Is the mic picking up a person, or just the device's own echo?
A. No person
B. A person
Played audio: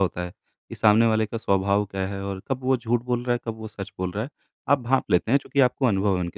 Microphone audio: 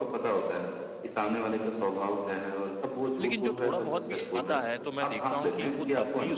B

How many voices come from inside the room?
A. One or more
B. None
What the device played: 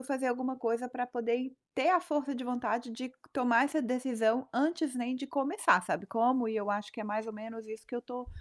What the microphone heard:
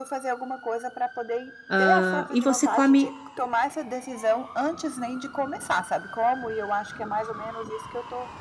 A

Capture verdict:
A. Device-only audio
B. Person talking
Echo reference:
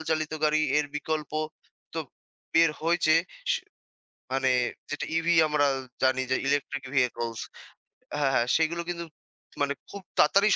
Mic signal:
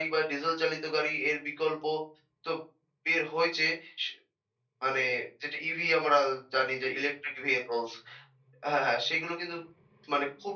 A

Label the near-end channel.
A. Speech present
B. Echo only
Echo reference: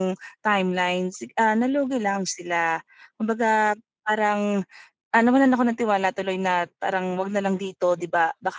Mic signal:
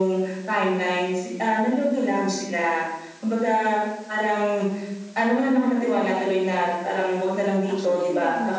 A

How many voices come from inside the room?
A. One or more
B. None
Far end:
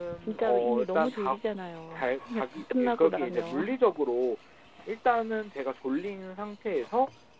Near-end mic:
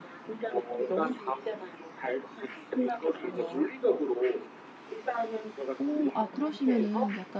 A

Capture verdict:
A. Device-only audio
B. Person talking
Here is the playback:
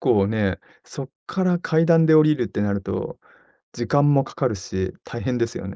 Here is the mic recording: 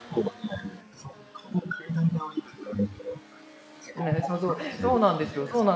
B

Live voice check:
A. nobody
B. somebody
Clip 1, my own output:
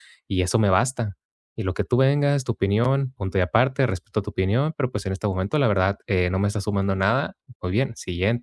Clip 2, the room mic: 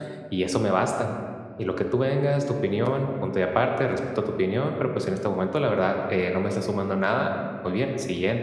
A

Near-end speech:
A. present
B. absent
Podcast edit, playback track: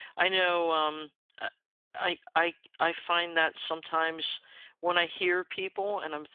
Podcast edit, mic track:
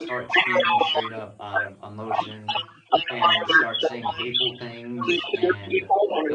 A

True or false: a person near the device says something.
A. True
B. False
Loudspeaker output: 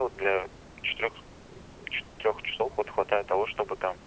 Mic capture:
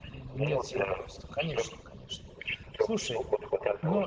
A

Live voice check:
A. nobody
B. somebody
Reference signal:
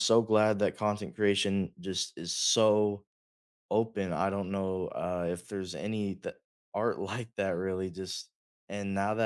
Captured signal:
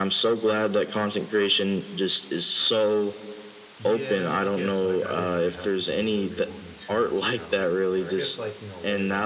B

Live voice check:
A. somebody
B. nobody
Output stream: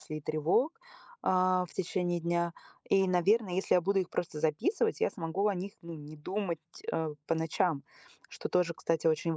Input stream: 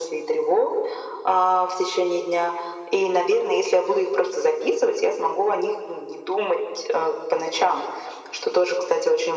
B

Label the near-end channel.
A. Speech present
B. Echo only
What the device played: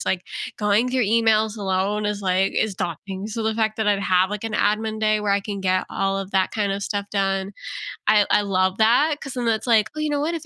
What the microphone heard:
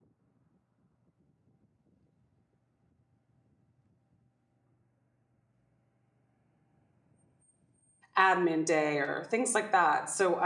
A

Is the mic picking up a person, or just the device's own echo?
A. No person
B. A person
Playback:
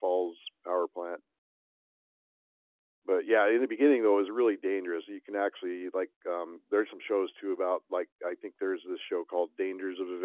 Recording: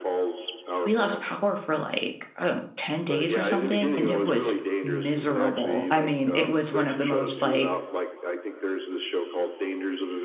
B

